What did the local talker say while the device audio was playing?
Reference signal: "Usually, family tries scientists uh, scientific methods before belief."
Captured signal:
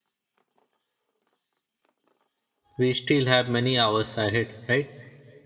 we still have many hours ahead right

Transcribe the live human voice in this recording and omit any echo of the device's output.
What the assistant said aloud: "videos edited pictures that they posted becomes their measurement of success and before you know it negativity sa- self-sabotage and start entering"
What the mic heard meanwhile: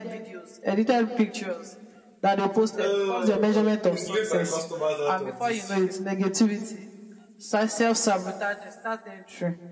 Oh, oh, please leave my customers out of this.

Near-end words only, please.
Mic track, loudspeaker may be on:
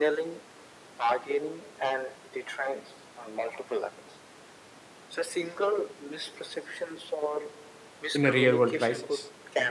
in a real world crisis.

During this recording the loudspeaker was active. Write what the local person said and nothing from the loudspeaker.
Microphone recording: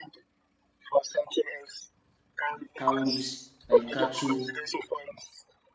cowries, like cattle,

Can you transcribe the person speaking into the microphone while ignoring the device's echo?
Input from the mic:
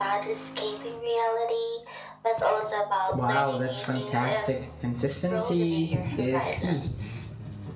Wow, that's fantastic. Consistency is key.

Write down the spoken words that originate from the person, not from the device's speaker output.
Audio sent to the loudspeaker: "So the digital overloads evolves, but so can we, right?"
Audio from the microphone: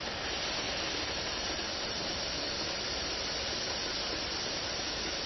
none

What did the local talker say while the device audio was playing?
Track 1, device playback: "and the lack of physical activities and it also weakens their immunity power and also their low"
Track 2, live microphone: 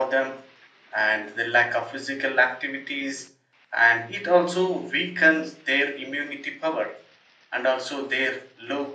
none

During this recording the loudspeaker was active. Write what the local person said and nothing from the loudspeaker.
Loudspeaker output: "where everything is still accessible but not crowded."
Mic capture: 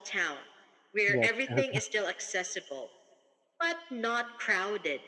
Yes, yes.

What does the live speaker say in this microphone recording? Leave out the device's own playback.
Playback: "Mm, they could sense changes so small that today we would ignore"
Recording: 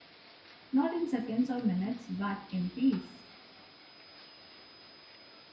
Not in seconds or minutes, but in peace.

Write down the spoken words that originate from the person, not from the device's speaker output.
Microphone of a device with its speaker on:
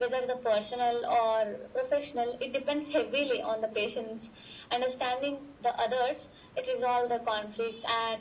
none

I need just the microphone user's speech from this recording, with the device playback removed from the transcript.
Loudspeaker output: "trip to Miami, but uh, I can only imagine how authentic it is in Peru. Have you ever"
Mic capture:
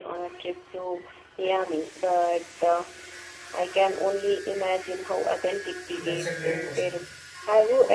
That's a great question.

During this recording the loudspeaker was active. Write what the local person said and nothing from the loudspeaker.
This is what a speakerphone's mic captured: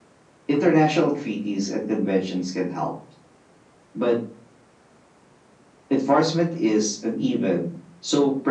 none

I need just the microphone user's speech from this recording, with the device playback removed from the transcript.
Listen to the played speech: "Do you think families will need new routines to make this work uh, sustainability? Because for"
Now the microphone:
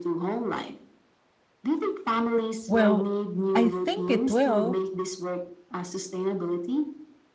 Well, I think it will

